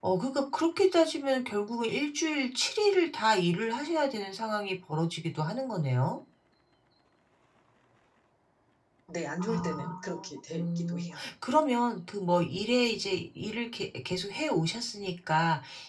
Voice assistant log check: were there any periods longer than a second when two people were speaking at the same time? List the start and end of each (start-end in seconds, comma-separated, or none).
9.5-11.2